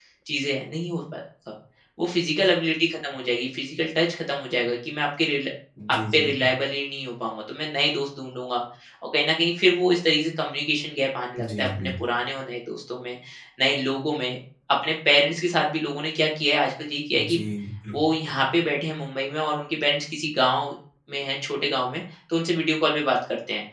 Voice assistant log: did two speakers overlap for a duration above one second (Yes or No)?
No